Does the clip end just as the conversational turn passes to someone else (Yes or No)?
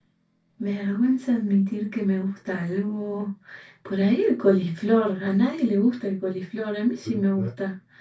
No